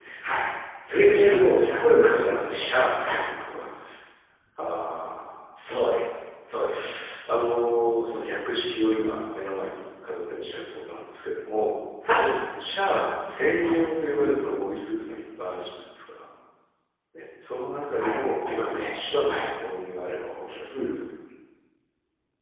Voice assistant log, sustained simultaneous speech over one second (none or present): present